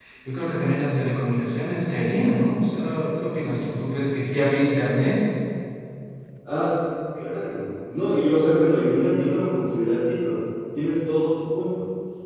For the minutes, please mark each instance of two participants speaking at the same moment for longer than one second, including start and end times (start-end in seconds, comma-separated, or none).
none